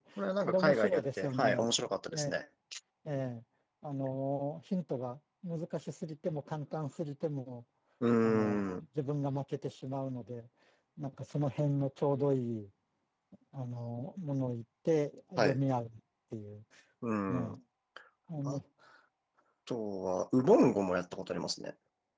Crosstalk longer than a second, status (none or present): present